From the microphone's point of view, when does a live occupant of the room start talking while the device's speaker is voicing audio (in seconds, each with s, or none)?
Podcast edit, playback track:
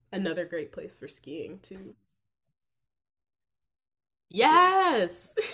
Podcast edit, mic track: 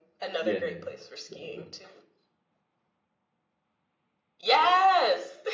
0.4 s